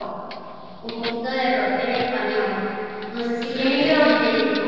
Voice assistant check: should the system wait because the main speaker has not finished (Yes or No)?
Yes